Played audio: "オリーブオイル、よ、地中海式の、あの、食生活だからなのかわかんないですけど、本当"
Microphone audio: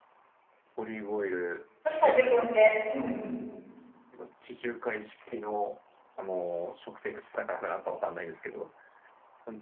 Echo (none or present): present